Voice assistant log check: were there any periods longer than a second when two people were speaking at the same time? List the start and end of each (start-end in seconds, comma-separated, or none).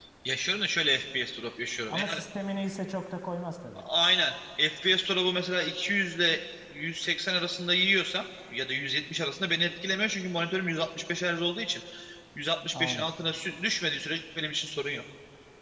none